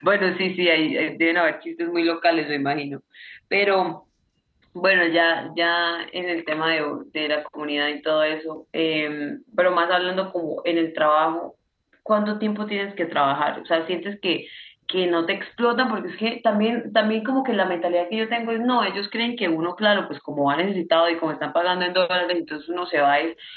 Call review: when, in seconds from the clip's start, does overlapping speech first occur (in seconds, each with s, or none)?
none